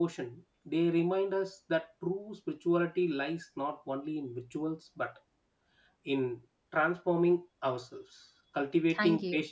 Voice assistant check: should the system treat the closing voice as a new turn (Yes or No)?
No